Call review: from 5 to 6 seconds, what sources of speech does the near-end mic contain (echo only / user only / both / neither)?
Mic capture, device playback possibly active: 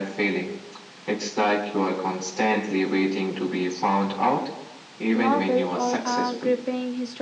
both